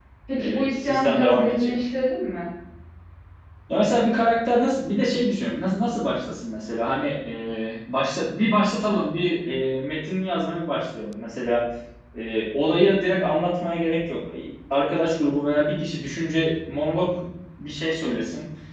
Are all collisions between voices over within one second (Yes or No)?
No